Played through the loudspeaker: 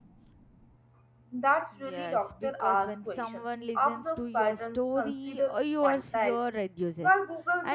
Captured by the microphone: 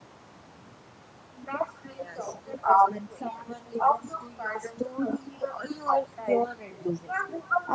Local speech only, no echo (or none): none